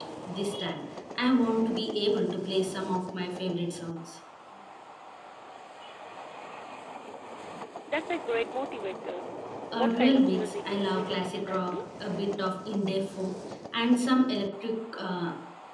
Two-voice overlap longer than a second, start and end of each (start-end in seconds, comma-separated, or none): 9.8-11.8